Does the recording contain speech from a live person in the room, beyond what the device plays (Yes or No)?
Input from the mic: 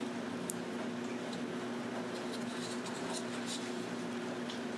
No